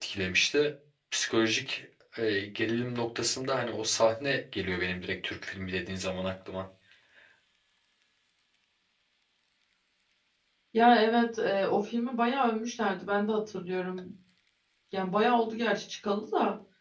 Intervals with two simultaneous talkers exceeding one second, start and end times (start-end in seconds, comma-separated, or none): none